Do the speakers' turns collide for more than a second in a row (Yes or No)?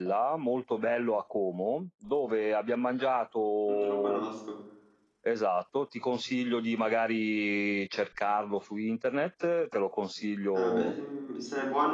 No